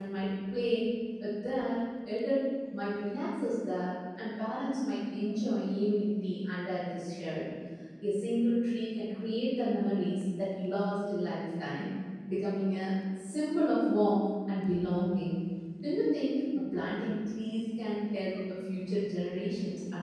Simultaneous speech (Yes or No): No